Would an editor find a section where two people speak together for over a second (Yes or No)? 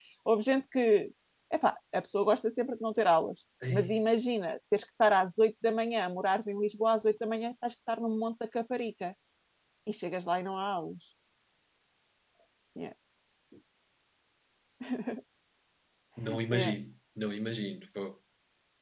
No